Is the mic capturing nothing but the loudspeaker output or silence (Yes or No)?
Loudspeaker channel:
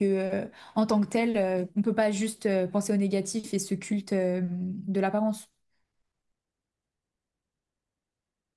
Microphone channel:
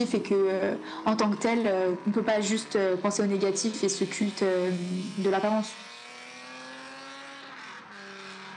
Yes